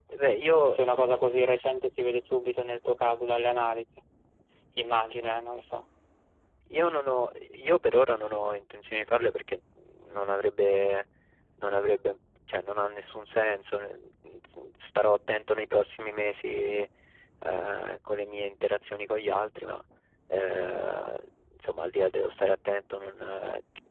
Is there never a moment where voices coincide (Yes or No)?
Yes